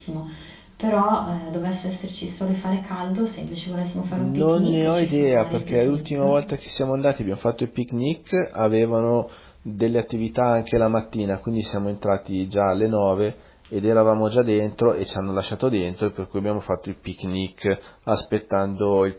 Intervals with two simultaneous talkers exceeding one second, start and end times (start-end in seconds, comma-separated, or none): 4.2-6.2